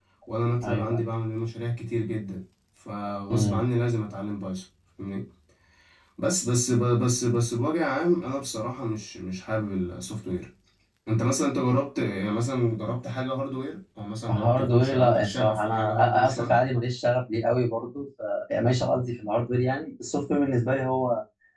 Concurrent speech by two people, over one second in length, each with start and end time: 14.3-16.6

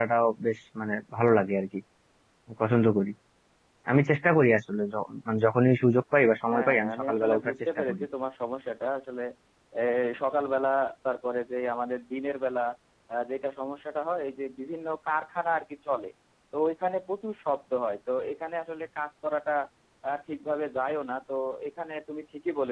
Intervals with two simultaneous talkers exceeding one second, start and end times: 6.5-8.0

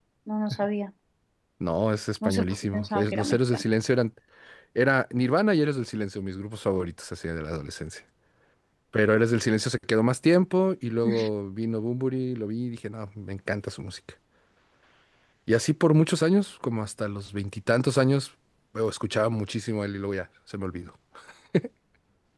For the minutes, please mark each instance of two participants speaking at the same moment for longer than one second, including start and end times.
2.2-3.6

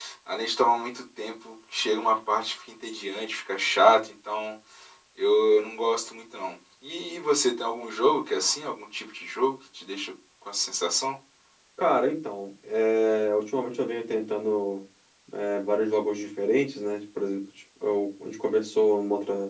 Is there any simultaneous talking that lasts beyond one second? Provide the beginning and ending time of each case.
none

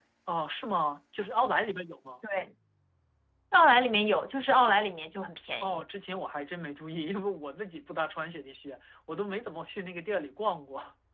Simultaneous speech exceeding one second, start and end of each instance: none

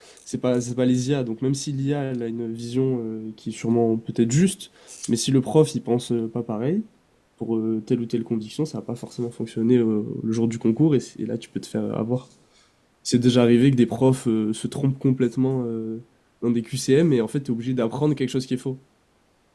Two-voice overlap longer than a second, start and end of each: none

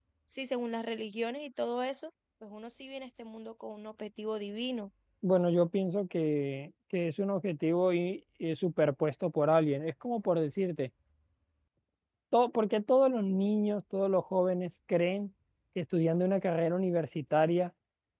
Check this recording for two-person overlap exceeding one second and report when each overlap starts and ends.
none

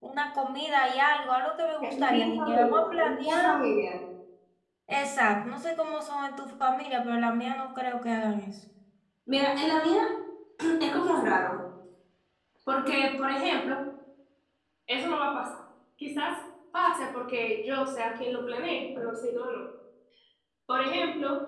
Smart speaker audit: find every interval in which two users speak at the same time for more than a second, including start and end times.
2.0-3.6

